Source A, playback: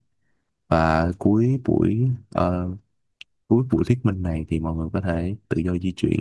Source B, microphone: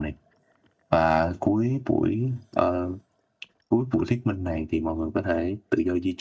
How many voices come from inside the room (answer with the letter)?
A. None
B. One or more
A